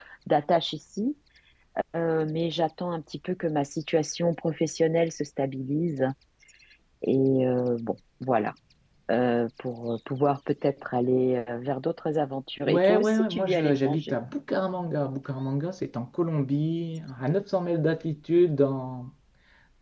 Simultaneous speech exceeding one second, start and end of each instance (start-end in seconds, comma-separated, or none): 12.7-14.2